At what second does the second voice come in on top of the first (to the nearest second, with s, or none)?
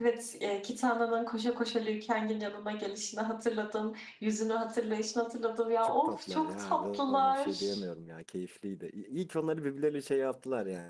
6 s